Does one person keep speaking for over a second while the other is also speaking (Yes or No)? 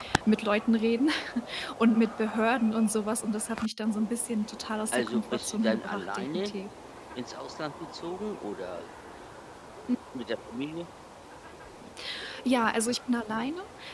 Yes